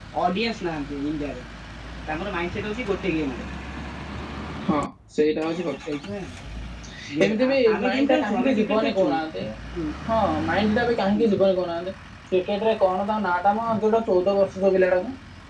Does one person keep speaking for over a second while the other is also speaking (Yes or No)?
Yes